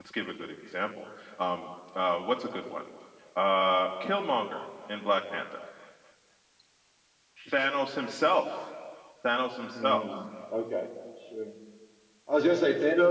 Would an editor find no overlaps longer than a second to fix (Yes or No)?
Yes